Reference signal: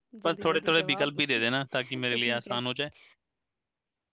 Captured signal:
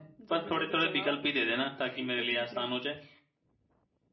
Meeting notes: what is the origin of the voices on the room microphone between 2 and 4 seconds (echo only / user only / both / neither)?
echo only